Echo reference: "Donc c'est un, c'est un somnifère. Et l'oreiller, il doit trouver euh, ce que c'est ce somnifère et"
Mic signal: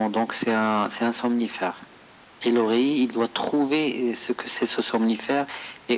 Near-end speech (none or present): none